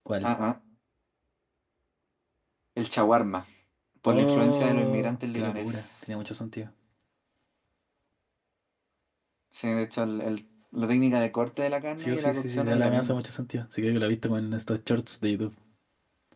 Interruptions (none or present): present